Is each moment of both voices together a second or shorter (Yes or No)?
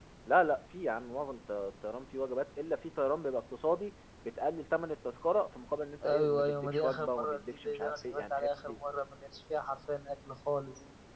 No